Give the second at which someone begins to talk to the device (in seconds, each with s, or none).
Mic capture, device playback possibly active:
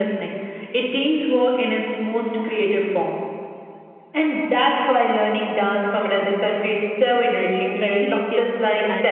7.6 s